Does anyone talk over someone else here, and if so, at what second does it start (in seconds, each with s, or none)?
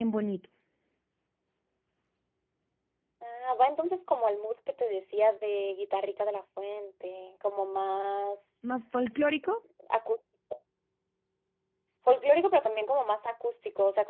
none